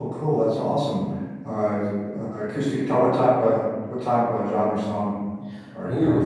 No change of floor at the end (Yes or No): No